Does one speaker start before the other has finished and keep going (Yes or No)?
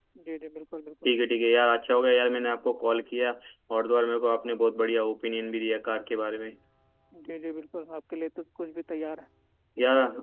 No